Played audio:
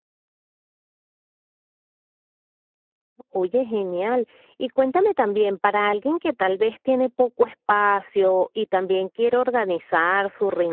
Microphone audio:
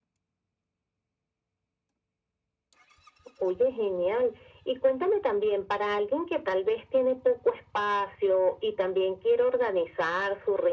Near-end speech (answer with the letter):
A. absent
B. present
A